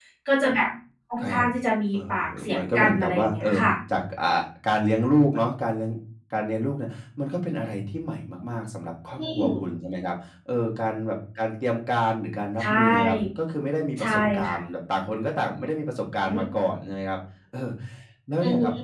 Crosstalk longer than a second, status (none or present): present